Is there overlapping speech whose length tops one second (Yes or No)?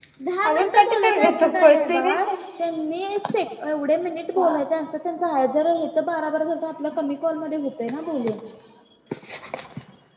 Yes